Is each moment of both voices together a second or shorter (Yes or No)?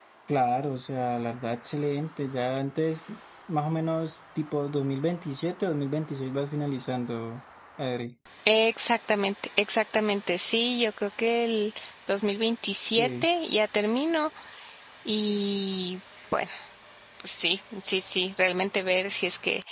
Yes